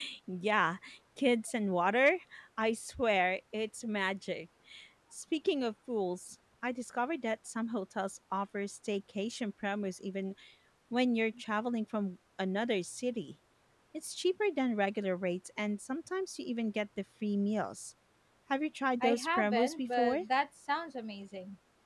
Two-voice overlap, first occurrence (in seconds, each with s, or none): 19.0 s